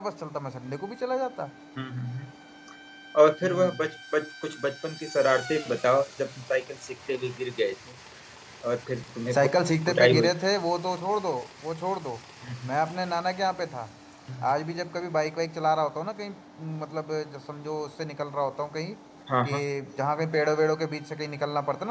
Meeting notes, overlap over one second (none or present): none